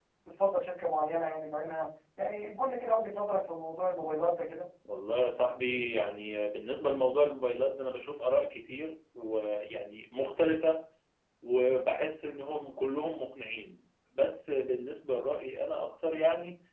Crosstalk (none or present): none